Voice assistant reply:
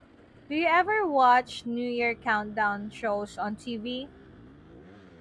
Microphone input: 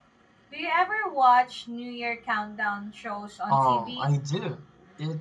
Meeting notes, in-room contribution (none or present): present